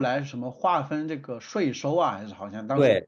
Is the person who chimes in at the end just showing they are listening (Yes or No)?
No